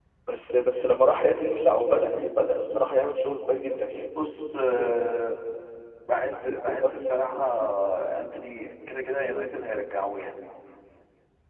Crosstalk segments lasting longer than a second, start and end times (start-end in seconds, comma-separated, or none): none